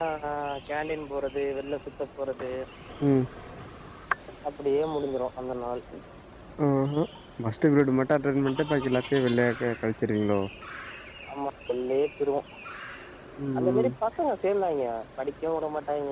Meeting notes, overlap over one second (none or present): none